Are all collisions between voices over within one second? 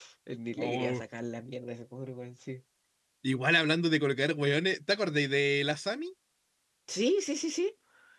Yes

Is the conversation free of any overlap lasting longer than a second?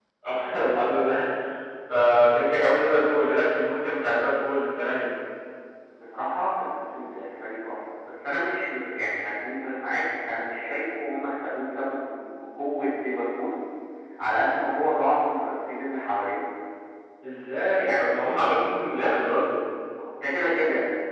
Yes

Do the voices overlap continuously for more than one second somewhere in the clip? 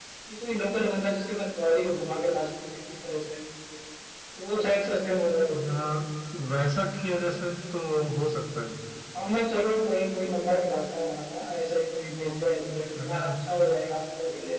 No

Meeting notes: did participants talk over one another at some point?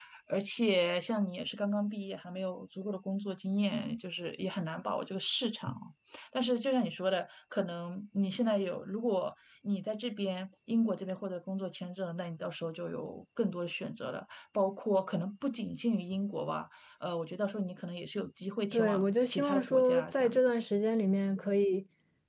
Yes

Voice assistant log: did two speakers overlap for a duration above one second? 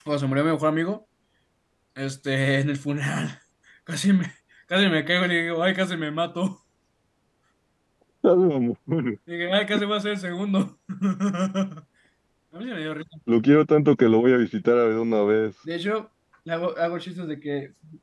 No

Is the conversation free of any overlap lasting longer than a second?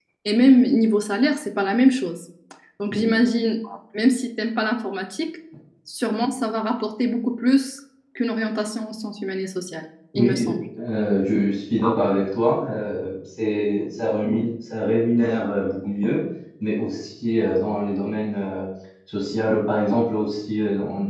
Yes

